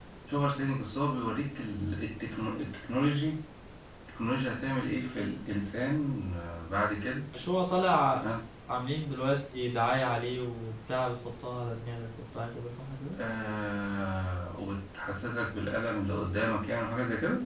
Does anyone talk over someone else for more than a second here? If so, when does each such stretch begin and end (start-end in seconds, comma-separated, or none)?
none